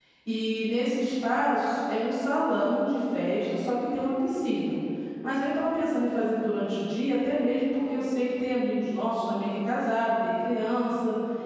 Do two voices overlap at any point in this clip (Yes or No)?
No